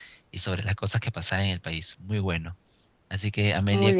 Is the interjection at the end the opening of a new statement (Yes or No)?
No